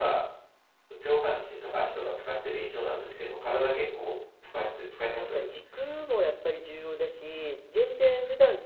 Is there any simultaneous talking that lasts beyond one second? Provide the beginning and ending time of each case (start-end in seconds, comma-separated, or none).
none